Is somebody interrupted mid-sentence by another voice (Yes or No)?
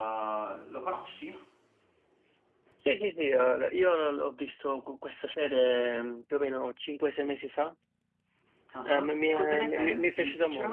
Yes